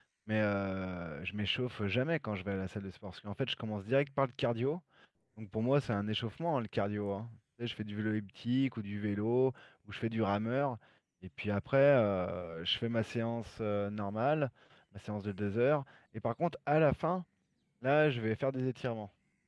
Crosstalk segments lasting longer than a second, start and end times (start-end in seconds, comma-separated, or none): none